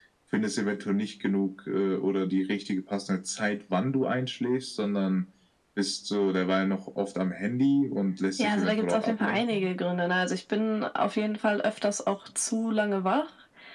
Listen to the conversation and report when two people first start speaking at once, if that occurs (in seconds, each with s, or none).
8.4 s